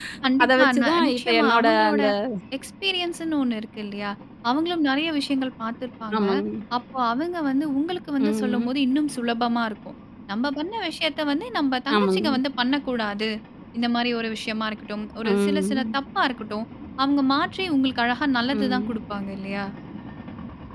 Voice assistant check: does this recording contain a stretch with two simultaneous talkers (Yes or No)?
Yes